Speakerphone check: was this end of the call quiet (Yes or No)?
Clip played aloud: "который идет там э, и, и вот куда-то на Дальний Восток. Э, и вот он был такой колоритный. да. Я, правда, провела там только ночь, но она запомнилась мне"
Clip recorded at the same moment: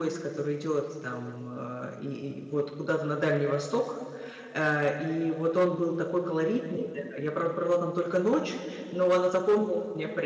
Yes